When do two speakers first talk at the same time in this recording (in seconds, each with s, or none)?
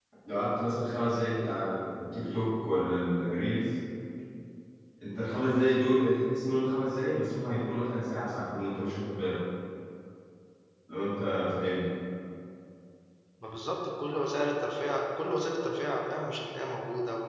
none